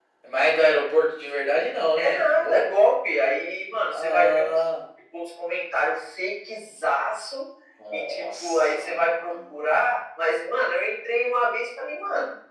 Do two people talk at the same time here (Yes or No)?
Yes